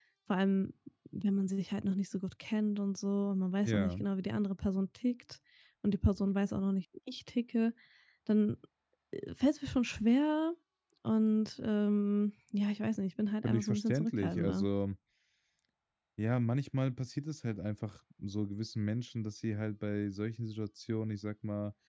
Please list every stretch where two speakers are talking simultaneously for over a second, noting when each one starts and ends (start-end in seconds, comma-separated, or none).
13.4-14.6